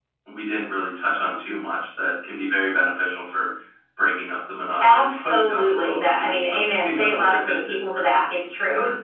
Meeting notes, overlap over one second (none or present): present